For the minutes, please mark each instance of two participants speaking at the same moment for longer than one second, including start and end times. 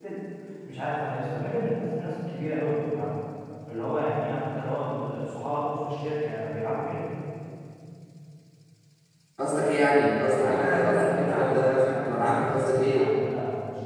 10.3-13.1

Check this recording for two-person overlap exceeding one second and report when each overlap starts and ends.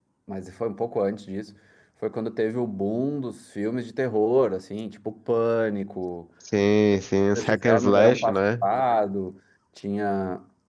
7.4-8.7

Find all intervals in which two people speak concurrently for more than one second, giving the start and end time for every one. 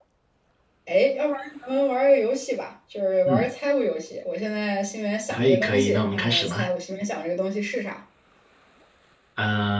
5.3-6.7

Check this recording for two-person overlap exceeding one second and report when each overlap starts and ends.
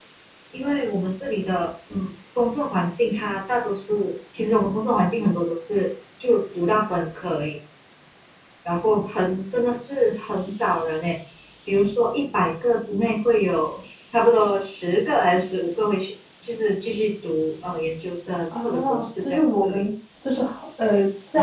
18.6-19.9

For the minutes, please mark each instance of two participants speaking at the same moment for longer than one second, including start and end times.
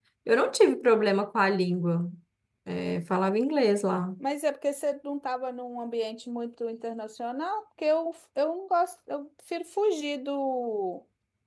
none

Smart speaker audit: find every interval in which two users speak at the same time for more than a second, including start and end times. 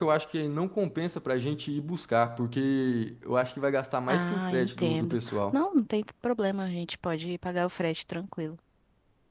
4.1-5.6

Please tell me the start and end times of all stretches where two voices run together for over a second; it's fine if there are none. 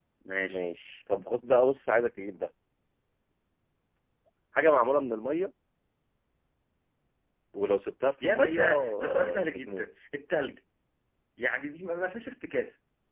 8.2-9.8

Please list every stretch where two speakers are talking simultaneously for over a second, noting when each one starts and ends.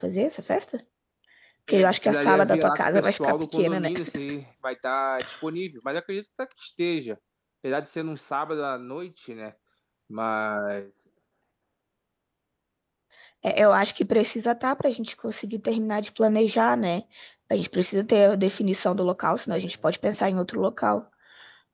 1.7-3.9

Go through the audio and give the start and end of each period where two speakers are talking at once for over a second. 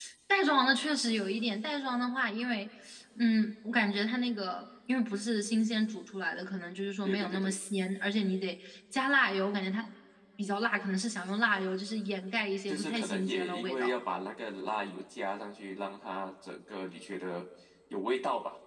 12.7-13.9

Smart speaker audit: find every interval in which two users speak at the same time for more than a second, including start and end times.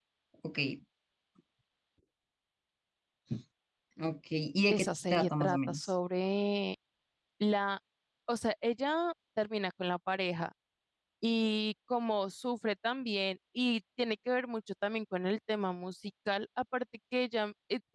4.7-5.9

